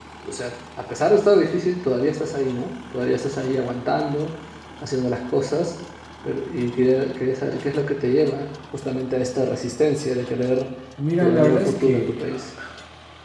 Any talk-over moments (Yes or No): Yes